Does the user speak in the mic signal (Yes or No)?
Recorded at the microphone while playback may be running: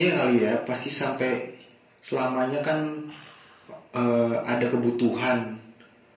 No